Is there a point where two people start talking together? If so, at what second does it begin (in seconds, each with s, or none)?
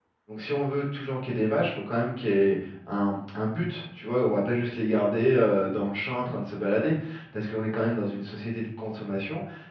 none